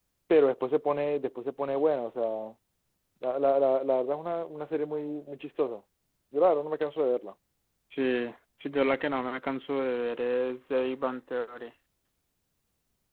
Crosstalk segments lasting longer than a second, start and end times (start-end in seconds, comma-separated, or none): none